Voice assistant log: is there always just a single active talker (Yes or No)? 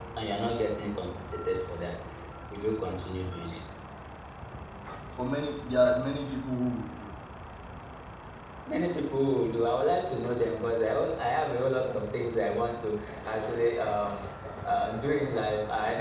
Yes